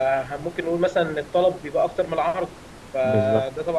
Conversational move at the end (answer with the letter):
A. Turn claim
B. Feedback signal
B